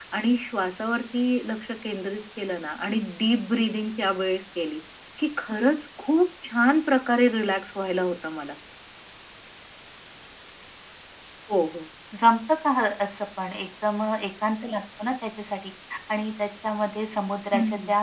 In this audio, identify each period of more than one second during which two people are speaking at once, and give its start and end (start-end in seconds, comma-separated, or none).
none